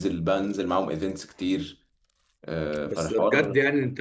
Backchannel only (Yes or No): No